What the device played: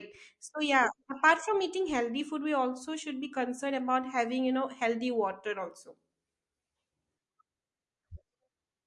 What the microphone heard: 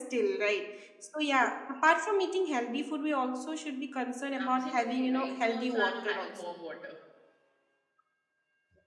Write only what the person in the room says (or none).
Absolutely. Right now also I'm having warm water.